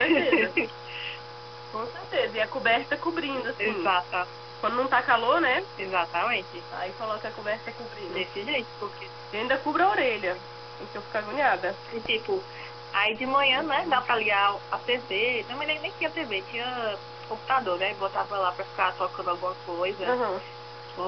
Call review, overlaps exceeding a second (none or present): none